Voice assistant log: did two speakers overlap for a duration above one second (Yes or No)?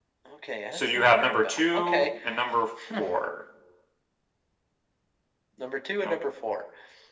Yes